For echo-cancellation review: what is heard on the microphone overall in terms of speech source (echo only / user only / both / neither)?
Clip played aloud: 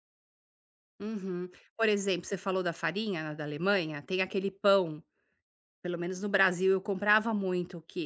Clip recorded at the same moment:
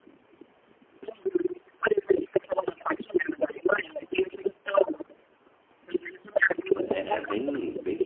both